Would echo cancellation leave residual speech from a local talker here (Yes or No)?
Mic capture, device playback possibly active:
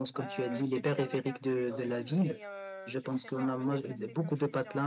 Yes